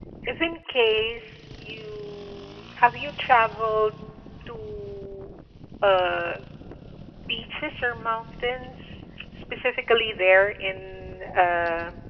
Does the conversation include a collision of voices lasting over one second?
No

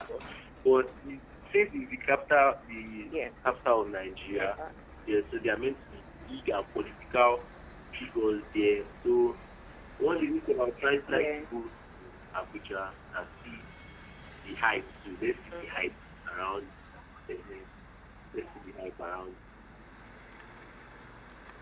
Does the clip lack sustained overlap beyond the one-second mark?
Yes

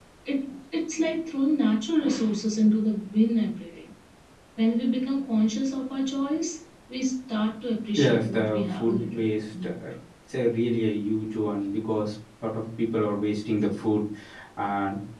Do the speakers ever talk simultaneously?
Yes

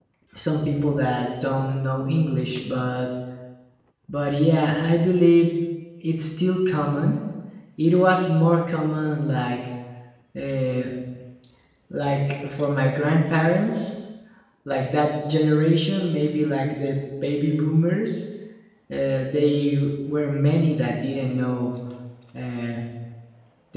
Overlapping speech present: No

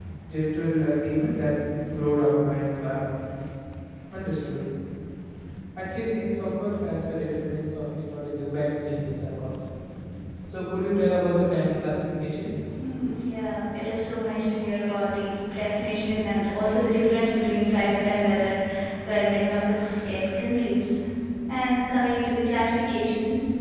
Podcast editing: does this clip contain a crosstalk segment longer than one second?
No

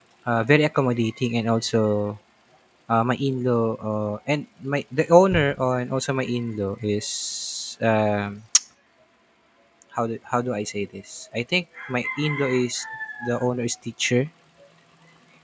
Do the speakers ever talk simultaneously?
No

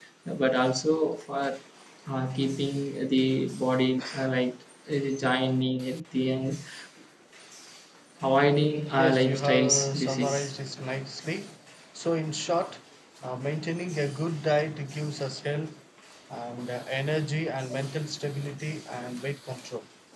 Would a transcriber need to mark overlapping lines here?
Yes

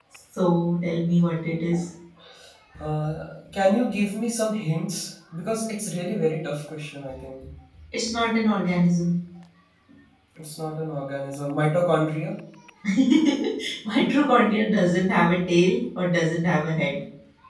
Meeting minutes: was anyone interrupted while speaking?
No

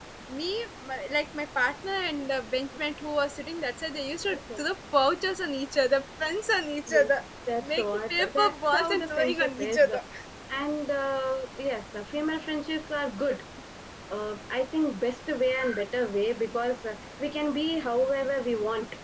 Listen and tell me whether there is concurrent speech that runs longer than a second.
Yes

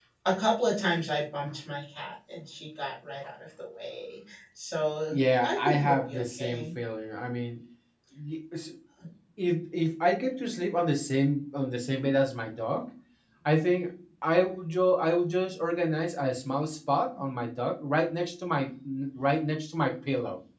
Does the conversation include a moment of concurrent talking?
Yes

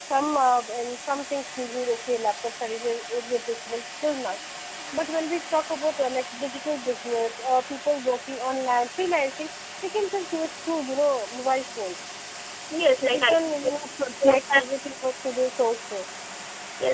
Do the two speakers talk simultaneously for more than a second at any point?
No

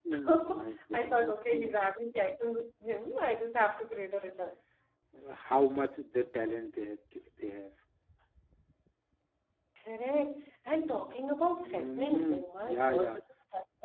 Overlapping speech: Yes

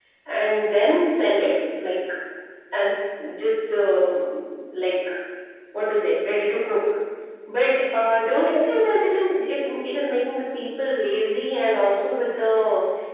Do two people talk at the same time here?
No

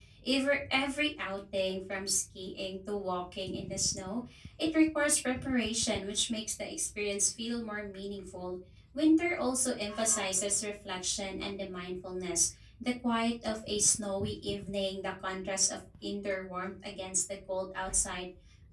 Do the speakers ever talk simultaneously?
No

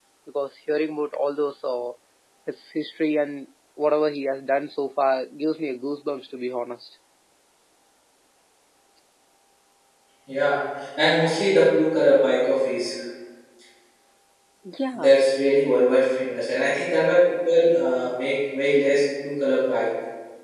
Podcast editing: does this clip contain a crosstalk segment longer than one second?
No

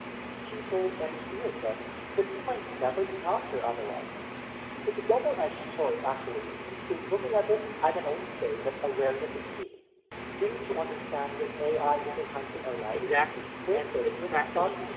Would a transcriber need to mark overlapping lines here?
Yes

